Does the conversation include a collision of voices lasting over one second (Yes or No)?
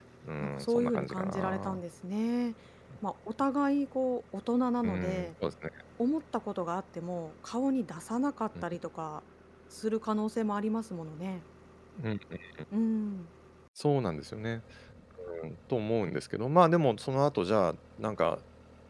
Yes